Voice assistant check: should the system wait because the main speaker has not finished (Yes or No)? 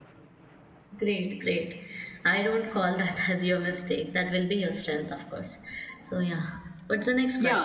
No